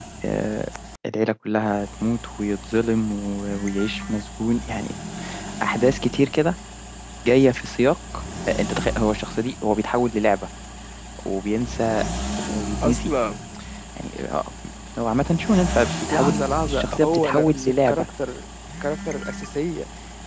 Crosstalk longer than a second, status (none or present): present